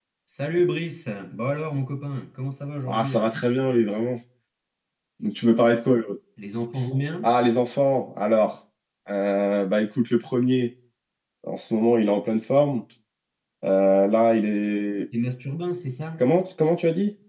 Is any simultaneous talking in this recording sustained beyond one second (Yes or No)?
No